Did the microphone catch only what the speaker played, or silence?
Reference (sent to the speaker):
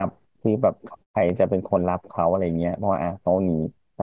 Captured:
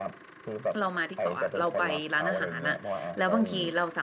No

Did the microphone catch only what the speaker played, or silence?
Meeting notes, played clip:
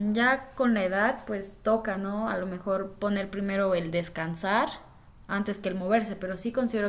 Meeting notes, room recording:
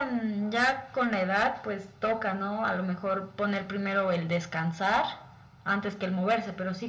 Yes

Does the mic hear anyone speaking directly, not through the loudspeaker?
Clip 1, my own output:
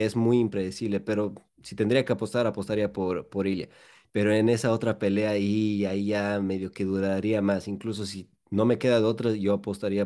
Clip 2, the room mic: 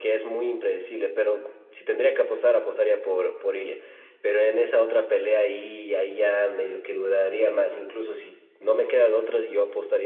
No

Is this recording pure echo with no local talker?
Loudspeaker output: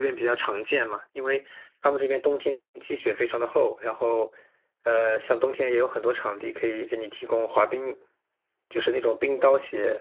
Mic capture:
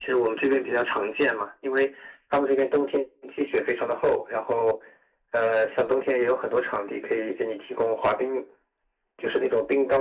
Yes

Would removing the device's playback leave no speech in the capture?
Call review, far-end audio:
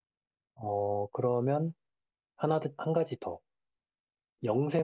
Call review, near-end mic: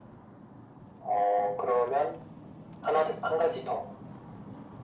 Yes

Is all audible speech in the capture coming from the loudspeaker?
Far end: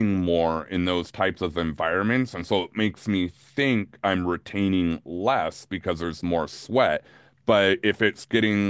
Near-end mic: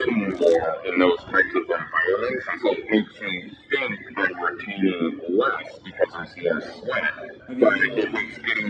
No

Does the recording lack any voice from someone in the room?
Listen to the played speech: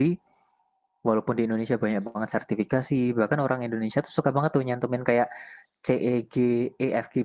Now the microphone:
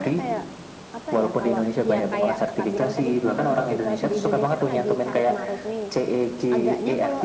No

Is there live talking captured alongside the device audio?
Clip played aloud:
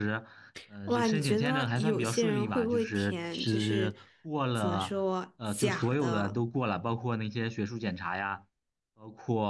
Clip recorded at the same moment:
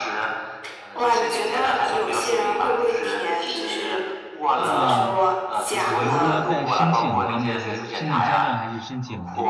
Yes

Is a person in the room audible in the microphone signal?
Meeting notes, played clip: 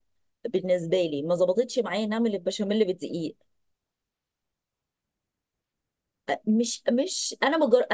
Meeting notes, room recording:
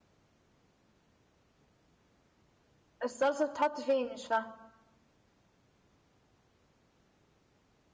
Yes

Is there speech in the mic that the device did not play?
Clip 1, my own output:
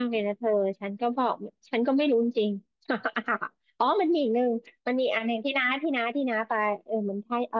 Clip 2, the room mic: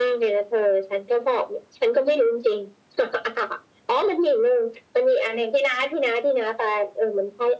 No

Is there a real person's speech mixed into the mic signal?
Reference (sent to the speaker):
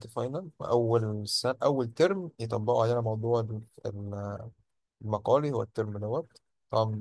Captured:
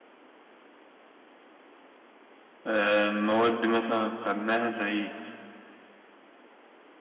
Yes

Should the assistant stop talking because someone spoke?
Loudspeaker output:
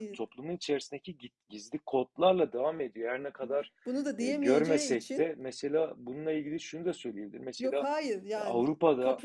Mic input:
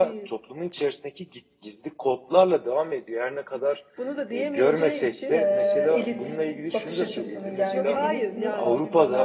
Yes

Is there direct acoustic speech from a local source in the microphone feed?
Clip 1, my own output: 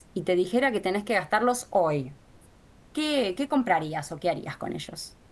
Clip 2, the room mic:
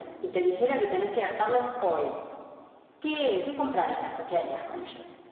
No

